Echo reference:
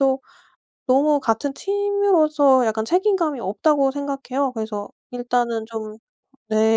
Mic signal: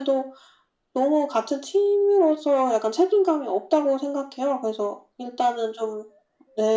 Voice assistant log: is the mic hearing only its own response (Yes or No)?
Yes